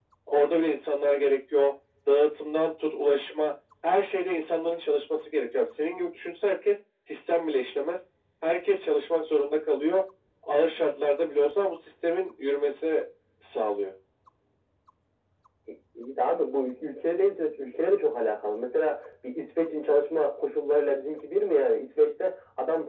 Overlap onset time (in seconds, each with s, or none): none